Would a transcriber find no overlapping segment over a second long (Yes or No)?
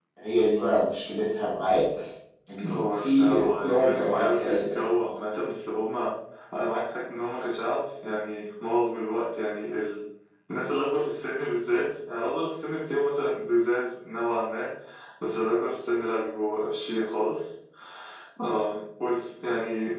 No